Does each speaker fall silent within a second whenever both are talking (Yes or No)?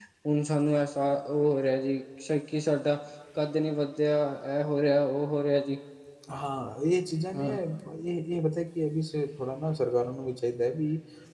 Yes